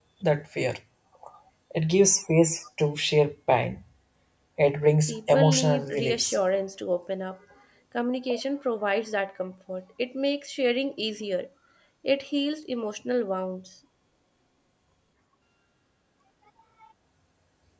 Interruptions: present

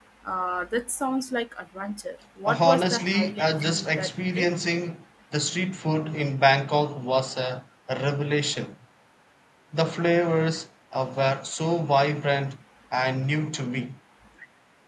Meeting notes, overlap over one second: present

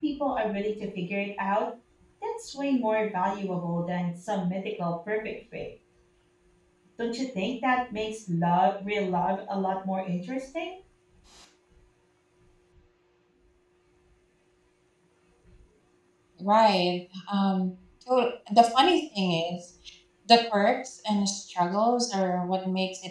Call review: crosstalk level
none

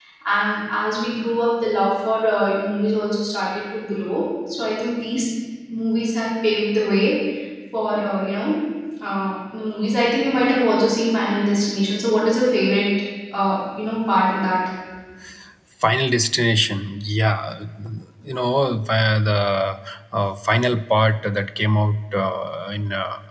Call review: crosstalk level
none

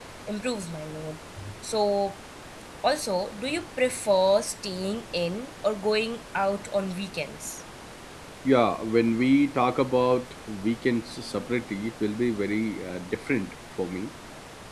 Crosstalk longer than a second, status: none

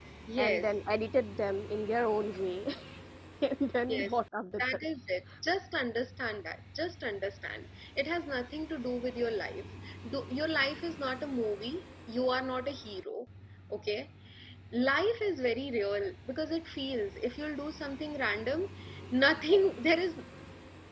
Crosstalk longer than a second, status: none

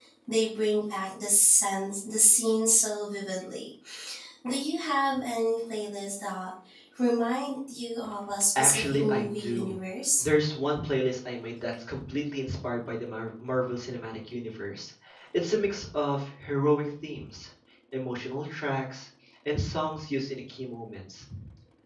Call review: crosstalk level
present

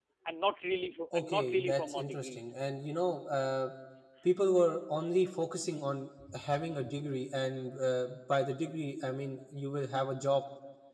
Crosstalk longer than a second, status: present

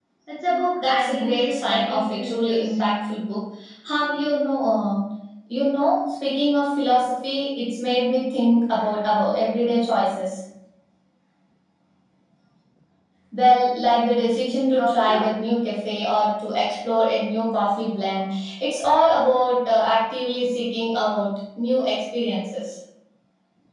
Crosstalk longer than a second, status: present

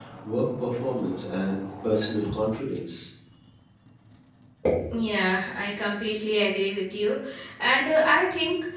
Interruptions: none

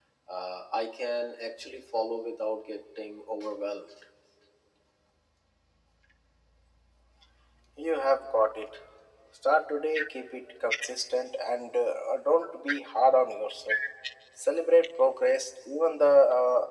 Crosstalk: none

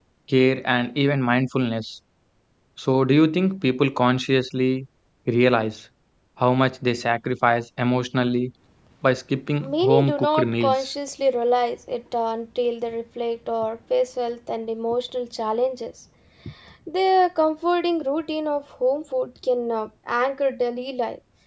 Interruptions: present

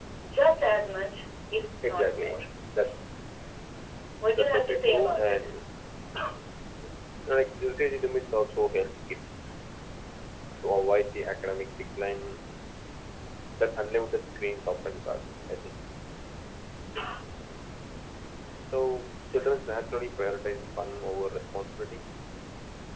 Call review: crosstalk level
present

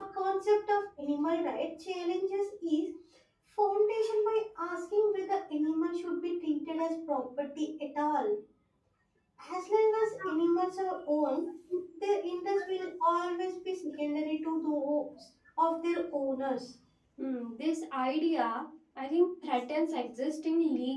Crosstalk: none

